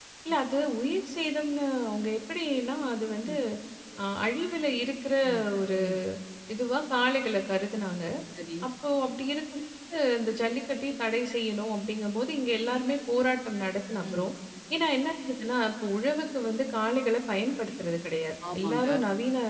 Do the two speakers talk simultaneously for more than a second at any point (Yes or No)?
No